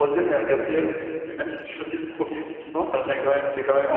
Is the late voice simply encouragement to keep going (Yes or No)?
Yes